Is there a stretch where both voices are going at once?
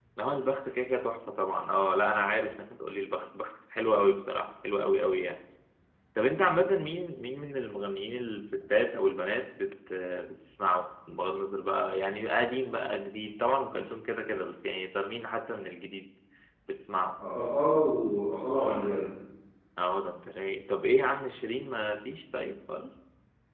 No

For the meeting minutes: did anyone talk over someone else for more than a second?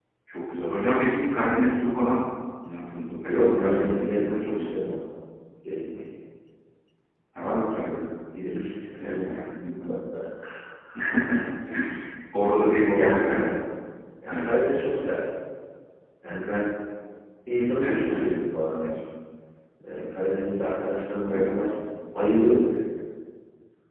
Yes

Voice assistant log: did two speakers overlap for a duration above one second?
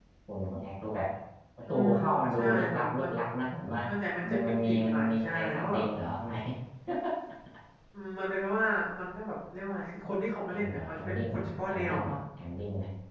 Yes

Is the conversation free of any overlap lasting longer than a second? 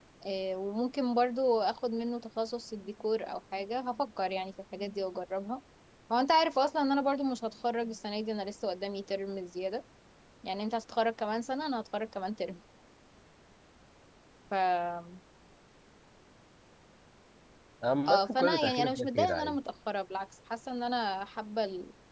No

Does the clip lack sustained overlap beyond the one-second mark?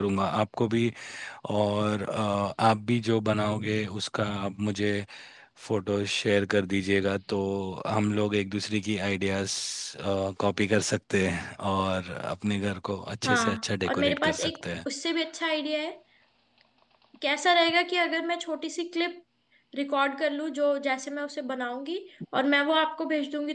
No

